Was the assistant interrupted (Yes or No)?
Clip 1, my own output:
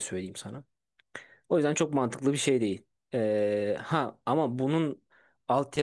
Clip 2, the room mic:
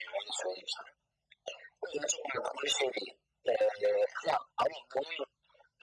No